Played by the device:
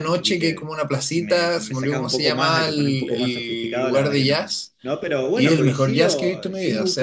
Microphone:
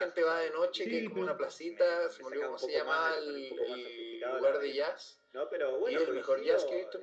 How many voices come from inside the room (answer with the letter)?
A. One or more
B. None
A